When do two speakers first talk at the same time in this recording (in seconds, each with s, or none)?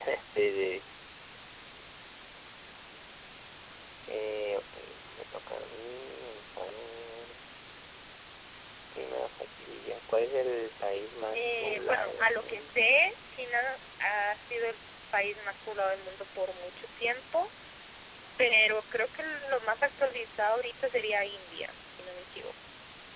11.3 s